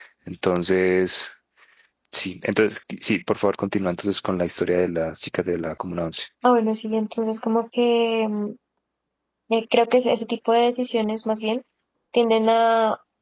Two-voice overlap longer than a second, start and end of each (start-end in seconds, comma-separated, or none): none